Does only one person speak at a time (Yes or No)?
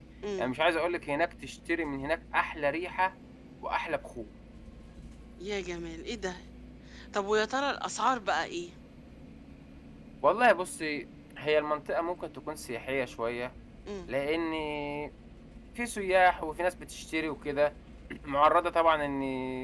Yes